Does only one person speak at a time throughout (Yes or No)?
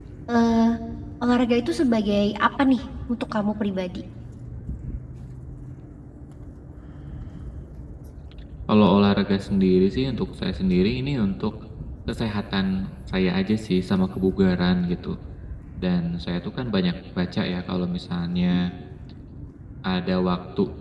Yes